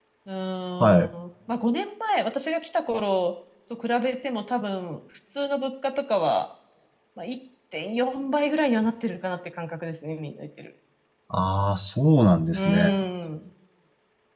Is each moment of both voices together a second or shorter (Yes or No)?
Yes